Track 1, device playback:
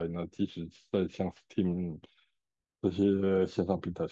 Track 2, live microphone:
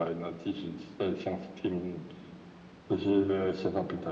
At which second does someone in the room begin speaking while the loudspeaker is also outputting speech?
none

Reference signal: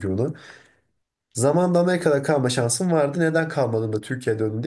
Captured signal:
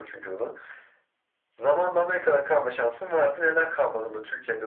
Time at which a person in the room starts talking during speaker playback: none

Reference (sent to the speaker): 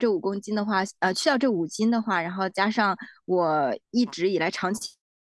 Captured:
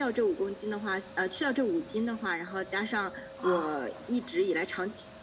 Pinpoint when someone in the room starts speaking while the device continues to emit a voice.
3.4 s

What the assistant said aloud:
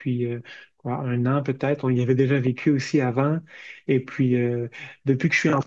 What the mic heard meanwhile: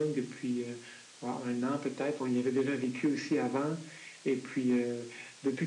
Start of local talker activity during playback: none

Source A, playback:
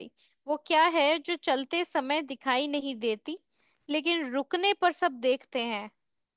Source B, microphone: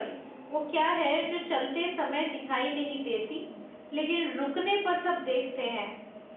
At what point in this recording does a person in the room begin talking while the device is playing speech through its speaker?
none

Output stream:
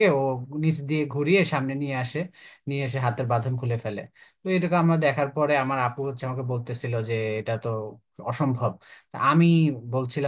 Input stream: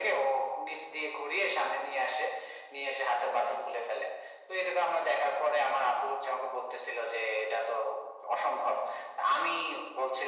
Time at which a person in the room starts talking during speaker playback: none

